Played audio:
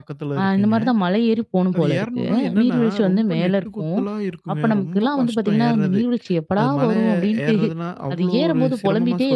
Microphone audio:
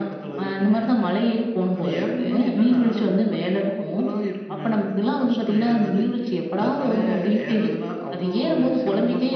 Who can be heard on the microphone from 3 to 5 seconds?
echo only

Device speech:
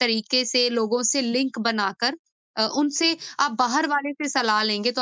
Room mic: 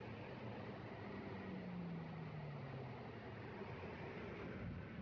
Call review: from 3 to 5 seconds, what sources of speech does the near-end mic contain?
neither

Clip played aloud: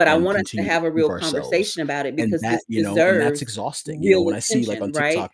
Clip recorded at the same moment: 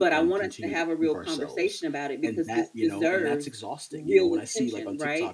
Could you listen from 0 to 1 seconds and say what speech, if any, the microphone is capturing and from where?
echo only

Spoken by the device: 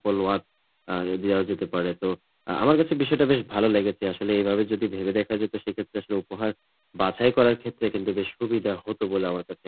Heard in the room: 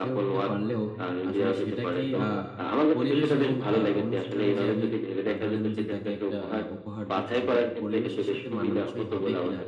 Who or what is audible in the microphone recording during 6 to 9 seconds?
both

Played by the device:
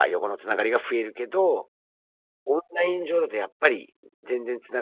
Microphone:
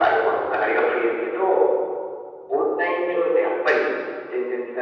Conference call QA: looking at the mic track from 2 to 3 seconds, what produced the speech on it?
echo only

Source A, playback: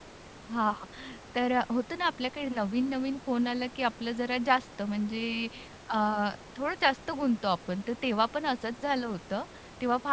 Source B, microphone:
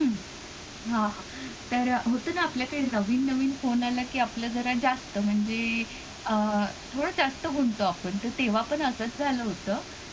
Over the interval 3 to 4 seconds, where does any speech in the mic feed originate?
echo only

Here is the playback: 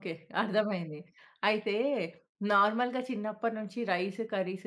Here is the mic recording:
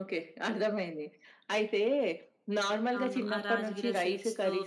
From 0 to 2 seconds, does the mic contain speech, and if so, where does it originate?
echo only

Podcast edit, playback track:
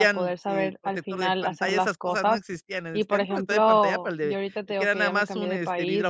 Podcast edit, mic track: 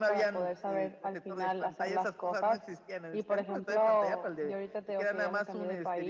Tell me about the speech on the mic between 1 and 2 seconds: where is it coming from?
echo only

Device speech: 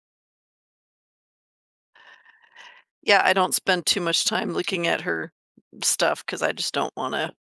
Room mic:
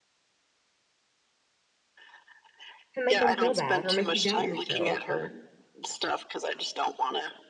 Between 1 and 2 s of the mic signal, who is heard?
neither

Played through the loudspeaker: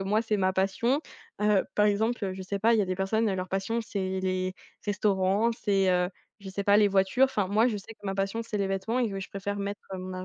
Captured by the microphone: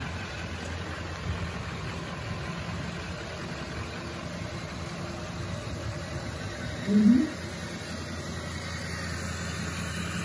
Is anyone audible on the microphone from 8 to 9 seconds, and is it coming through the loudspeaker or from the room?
neither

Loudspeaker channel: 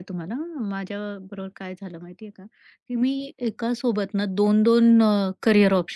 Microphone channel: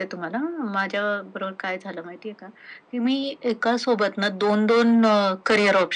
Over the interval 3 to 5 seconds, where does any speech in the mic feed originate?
echo only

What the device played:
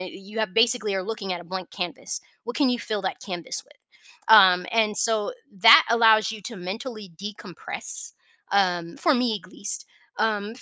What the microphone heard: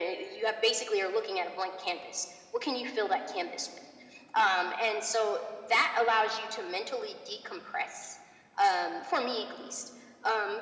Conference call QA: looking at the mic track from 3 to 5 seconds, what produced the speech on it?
echo only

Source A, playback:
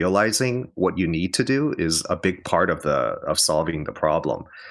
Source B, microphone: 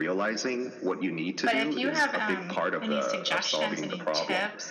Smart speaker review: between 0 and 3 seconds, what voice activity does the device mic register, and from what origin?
both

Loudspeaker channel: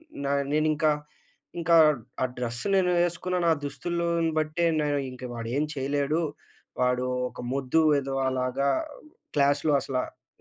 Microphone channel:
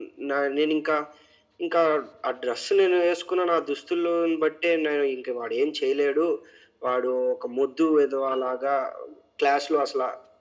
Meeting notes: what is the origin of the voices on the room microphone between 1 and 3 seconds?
echo only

